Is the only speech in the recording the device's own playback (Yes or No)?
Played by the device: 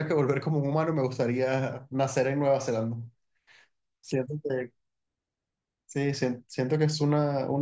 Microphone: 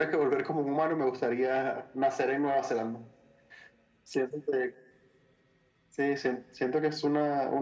Yes